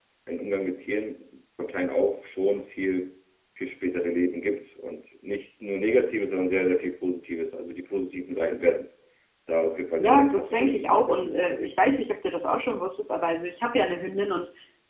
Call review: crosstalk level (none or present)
present